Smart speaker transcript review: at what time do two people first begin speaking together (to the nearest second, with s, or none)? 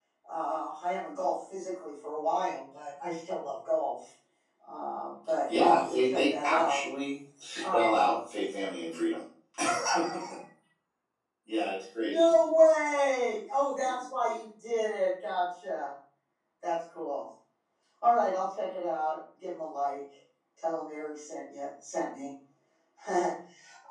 6 s